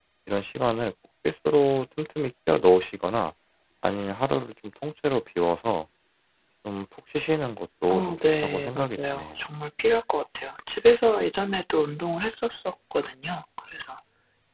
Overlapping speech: Yes, from 7.9 s

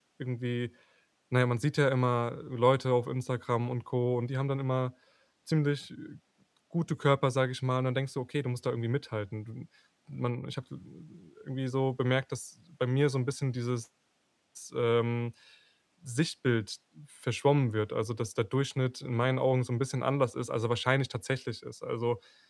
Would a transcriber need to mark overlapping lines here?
No

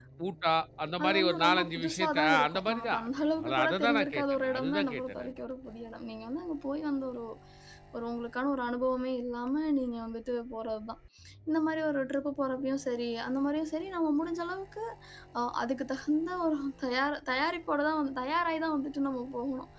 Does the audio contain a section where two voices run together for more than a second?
Yes, from 1.0 s

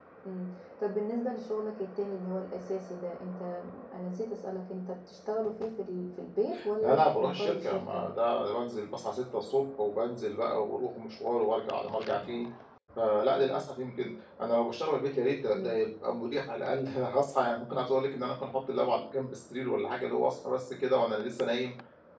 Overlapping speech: Yes, from 6.8 s

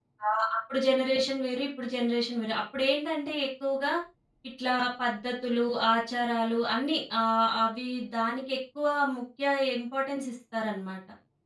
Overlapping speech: No

